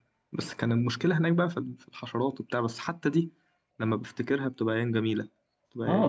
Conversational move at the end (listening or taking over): taking over